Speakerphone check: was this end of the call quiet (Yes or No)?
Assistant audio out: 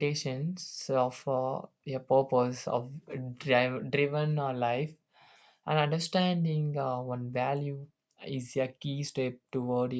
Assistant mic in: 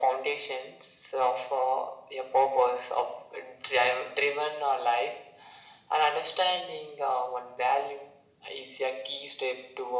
Yes